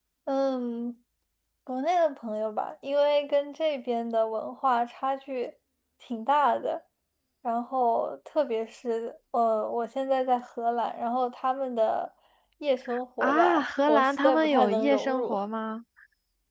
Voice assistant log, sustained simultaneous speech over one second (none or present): present